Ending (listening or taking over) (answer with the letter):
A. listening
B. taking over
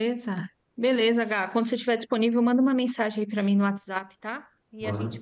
A